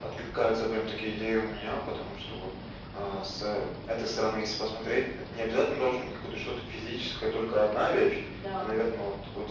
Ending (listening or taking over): listening